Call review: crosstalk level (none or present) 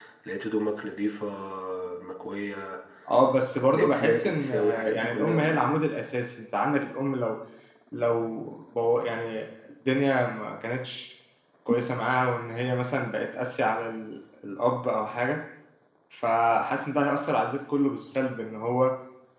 present